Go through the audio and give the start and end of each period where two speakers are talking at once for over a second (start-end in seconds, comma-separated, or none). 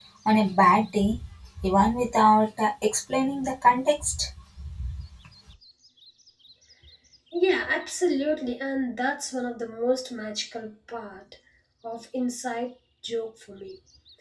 none